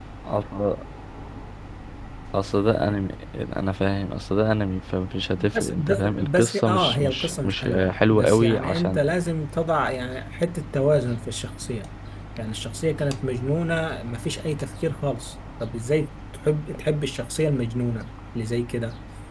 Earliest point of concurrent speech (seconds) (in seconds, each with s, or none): 5.4 s